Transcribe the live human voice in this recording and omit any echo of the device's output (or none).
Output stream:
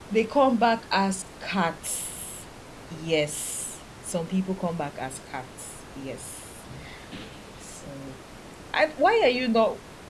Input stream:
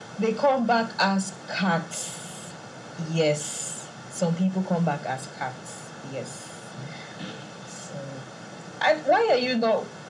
none